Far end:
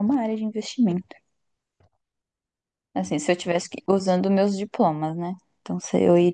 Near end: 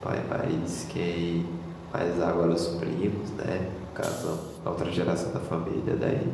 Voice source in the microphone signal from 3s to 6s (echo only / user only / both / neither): user only